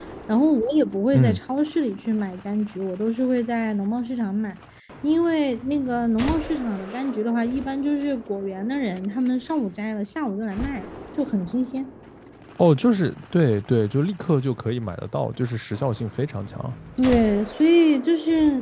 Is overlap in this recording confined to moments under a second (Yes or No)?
Yes